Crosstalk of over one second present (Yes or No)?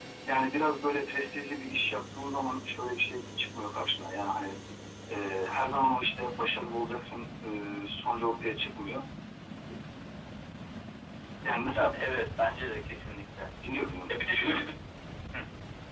No